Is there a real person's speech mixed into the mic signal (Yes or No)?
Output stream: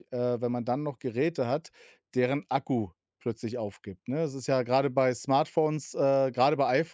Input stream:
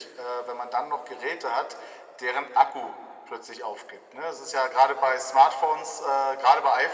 No